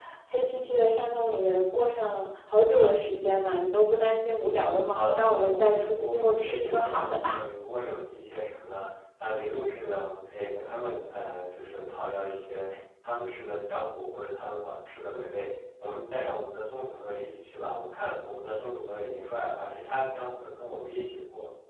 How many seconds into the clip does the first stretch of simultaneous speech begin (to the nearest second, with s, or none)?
5 s